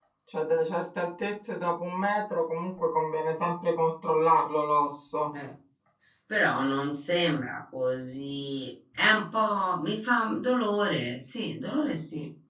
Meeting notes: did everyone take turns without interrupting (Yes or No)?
Yes